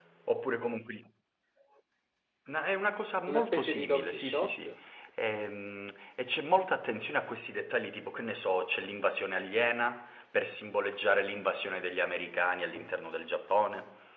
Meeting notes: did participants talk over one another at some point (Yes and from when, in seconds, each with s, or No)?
Yes, from 3.3 s